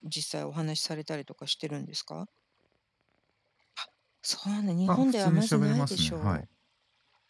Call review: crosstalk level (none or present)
present